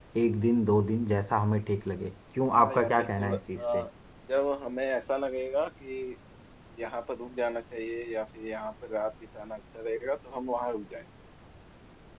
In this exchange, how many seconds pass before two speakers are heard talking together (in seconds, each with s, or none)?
2.5 s